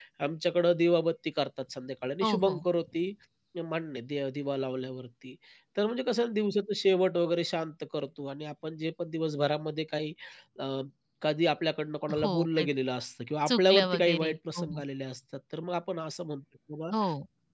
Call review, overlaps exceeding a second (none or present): present